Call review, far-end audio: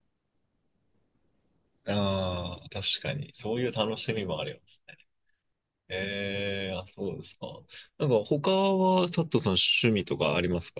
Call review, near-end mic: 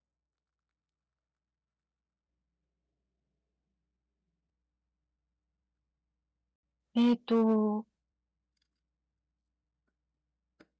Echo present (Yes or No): No